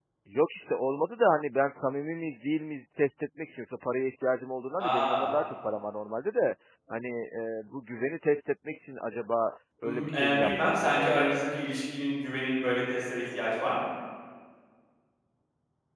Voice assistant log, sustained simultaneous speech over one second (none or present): present